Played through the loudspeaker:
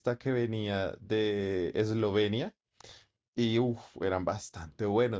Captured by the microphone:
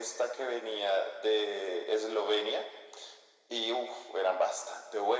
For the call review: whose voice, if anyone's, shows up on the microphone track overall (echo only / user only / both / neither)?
echo only